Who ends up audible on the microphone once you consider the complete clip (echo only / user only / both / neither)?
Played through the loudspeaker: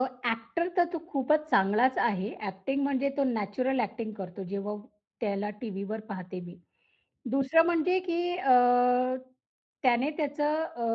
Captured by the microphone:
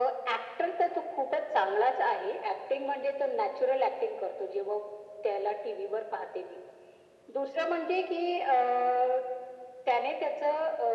echo only